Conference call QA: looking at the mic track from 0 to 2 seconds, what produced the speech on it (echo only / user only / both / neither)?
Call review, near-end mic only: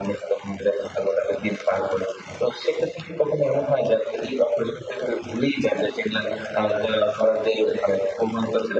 echo only